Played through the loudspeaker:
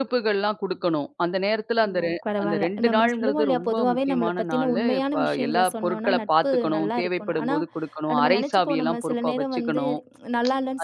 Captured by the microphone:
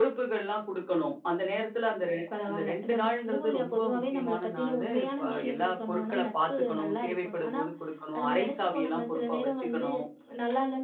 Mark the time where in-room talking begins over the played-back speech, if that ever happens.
none

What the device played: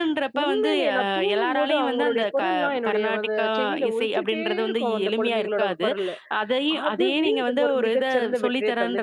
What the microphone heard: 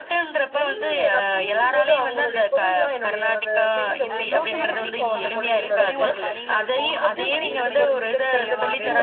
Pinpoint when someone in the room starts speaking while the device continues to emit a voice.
4.1 s

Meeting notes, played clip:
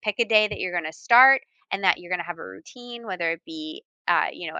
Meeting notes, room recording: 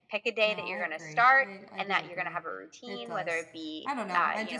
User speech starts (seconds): 0.4 s

